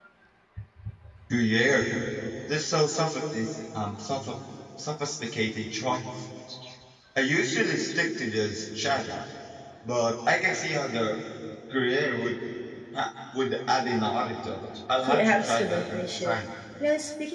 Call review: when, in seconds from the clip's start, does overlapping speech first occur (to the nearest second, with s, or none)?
15 s